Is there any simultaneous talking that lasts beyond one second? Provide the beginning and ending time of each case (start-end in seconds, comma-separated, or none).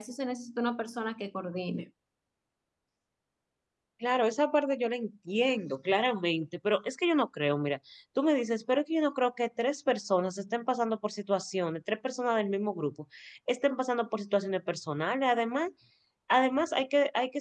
none